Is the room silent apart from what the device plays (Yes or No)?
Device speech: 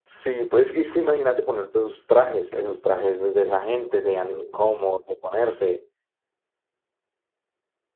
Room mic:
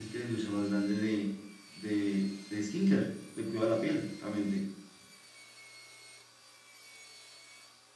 No